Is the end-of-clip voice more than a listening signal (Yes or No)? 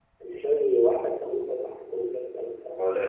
No